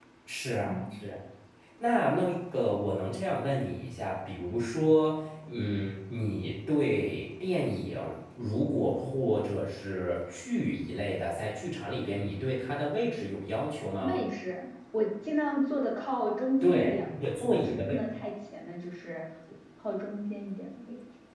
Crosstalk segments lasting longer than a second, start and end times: 16.6-18.0

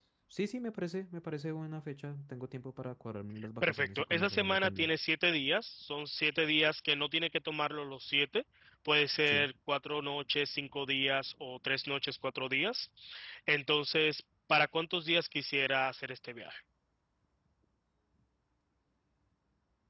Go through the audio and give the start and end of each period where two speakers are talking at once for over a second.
3.6-4.9

